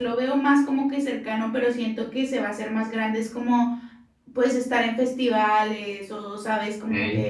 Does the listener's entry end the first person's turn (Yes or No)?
No